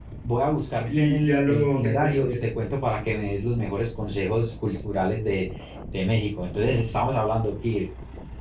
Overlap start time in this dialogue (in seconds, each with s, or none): 0.9 s